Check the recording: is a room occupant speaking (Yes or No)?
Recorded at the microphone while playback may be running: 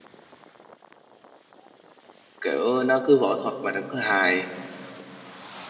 Yes